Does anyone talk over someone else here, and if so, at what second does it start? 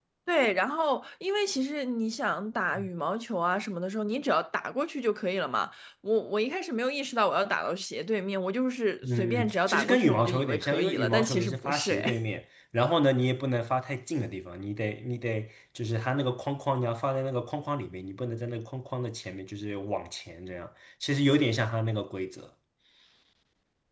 9.0 s

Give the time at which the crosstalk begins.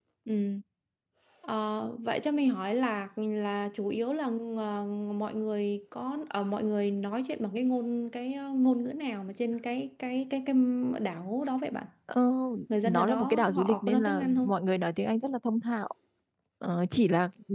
12.8 s

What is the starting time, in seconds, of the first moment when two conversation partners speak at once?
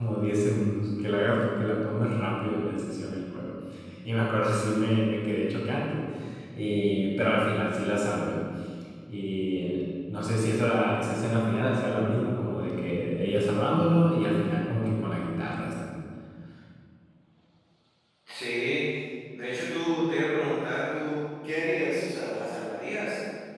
none

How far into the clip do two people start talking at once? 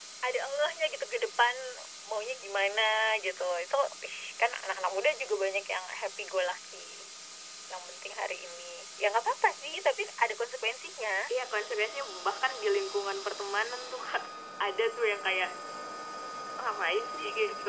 none

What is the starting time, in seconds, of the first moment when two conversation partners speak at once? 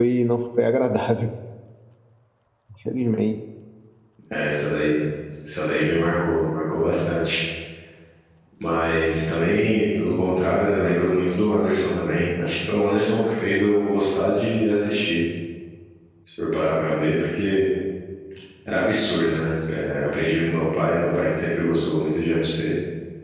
none

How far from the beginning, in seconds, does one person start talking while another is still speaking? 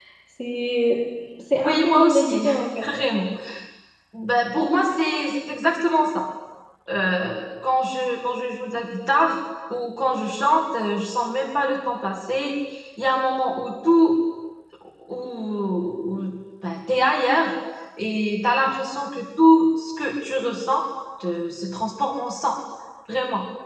1.6 s

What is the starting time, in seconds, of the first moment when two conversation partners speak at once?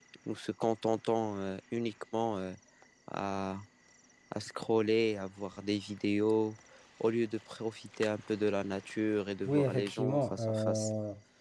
9.4 s

